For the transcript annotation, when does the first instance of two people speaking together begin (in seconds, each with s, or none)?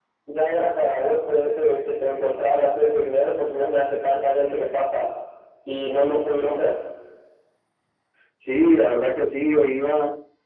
none